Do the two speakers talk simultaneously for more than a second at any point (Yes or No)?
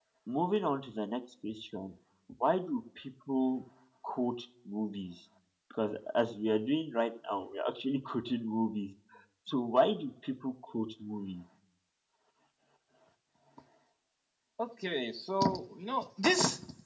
No